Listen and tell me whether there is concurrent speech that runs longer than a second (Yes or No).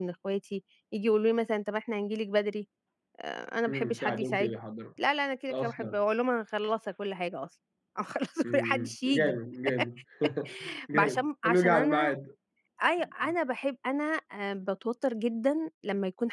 Yes